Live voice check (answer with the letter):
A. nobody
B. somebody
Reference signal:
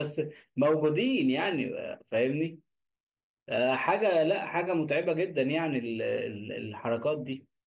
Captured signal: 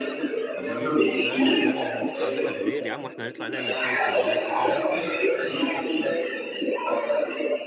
B